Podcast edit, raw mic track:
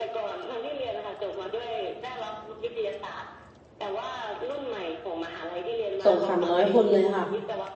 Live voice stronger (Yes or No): Yes